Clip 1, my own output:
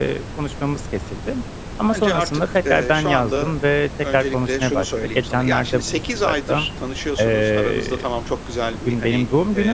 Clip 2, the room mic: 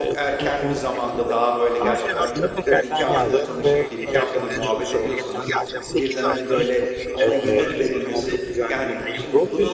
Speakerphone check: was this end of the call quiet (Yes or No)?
No